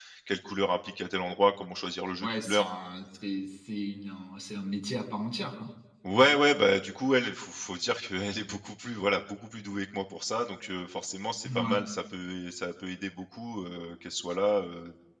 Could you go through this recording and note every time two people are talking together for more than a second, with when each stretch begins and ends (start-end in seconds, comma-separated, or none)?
none